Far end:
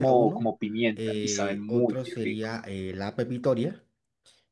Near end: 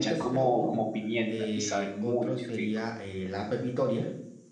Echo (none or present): present